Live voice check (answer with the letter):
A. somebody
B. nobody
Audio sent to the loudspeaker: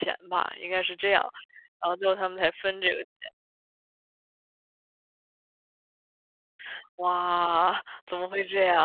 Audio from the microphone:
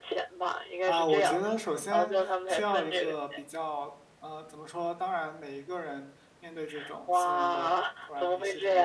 A